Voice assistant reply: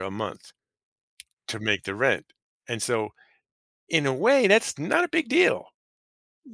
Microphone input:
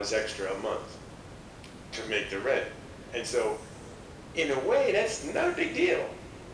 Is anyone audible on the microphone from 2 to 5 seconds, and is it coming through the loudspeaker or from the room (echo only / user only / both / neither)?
echo only